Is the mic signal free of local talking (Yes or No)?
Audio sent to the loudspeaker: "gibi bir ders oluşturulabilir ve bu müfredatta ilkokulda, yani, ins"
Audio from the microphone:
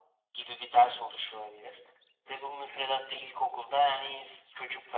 Yes